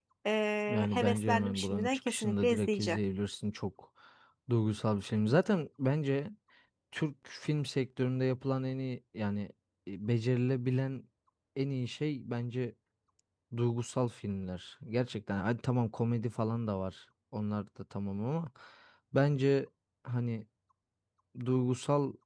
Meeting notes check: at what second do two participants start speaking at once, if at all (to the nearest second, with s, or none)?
1 s